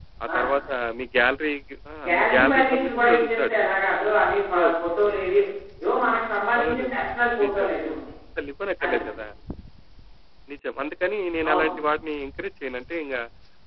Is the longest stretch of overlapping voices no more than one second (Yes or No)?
No